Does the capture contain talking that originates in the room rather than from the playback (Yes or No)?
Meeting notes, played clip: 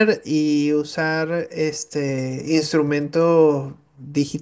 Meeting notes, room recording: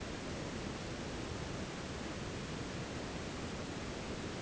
No